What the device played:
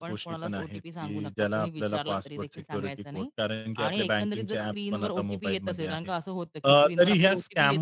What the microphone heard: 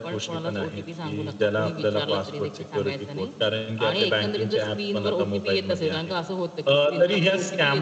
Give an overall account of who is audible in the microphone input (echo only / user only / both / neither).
echo only